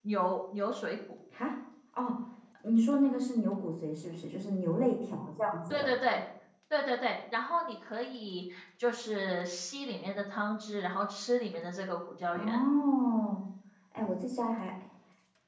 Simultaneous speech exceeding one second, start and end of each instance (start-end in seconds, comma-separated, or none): none